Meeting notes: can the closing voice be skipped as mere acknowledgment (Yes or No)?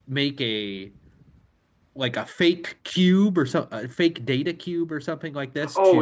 No